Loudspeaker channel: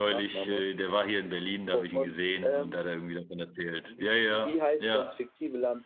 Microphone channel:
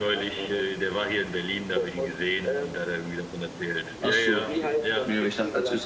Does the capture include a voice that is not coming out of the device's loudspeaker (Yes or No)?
Yes